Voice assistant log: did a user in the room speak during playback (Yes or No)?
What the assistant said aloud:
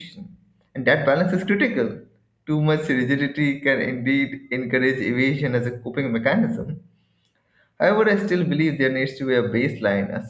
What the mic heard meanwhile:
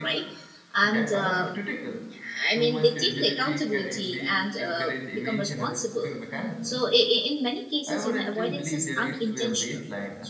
Yes